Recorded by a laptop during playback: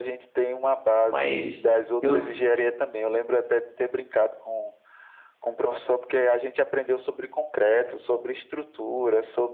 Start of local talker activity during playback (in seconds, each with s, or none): 1.0 s